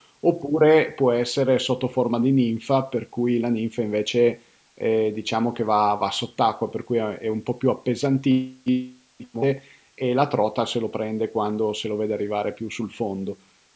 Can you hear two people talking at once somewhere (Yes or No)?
No